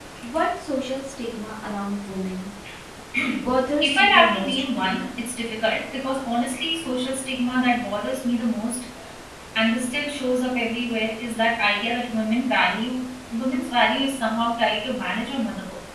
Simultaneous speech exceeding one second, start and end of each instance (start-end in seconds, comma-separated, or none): 3.8-5.1